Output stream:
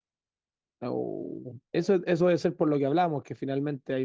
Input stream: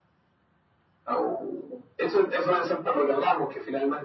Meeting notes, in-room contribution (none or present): none